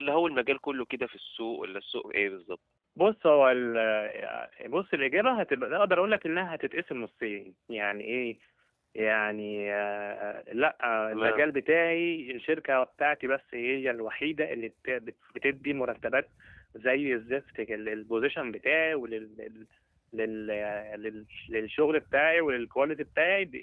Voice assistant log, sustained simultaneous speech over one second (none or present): none